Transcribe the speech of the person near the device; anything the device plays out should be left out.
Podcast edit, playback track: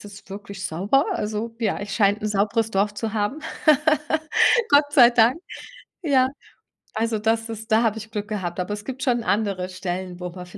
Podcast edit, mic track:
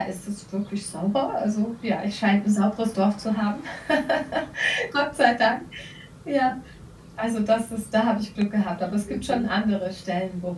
Mhm.

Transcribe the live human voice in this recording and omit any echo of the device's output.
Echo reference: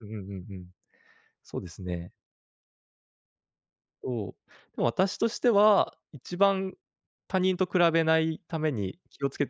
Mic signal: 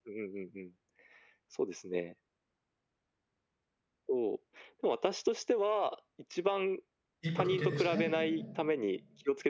一歩引いてですね、

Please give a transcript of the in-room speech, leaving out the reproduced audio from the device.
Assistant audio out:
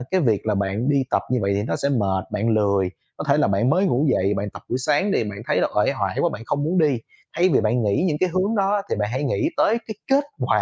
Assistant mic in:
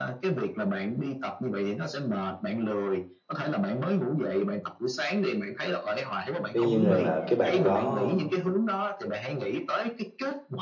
Tuy nhiên rằng là cái bạn đó

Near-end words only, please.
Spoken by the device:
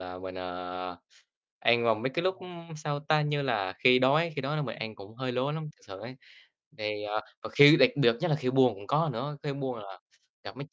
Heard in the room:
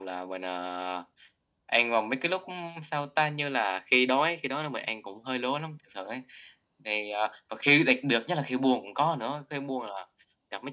none

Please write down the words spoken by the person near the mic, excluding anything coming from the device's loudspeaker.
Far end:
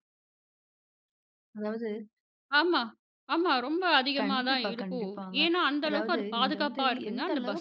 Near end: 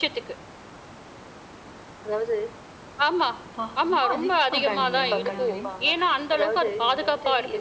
அப்பா! ரொம்ப அதிகமா இருக்குங்க. உண்மையாவே.

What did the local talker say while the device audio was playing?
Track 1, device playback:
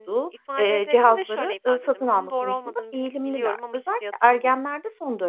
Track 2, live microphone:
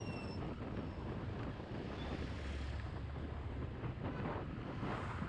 none

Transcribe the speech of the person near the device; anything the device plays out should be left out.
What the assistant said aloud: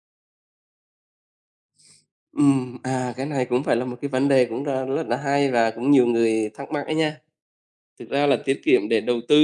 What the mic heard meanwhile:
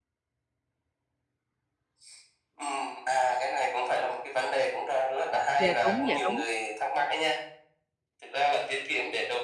Dạ, đúng, dạ, đúng.

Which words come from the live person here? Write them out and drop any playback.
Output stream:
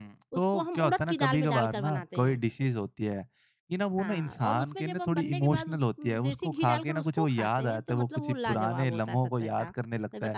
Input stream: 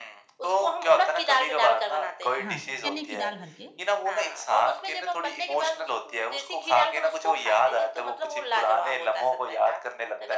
हाँ, चने की दाल भर के

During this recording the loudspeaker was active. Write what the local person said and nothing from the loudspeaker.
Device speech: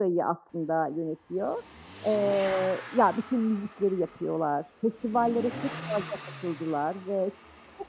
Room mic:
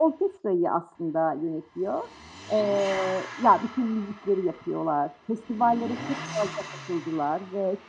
none

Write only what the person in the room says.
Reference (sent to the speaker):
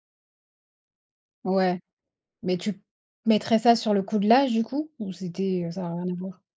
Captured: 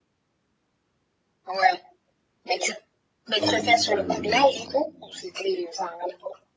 Oui. Oui, oui.

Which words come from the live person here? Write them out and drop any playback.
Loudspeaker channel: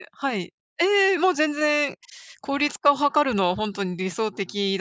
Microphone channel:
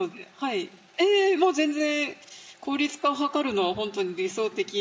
none

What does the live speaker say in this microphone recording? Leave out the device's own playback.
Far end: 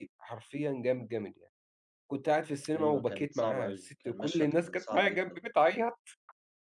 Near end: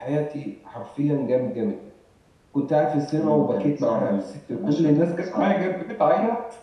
none

